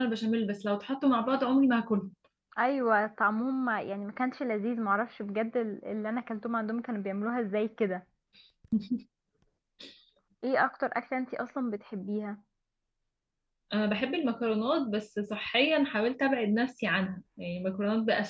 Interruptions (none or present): none